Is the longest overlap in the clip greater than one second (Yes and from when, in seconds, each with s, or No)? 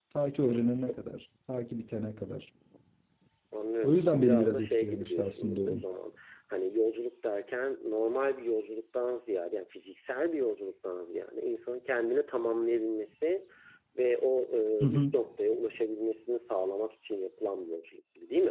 Yes, from 3.8 s